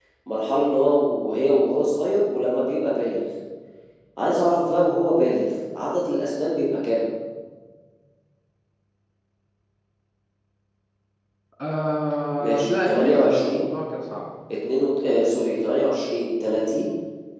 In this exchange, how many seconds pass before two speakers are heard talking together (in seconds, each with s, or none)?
12.4 s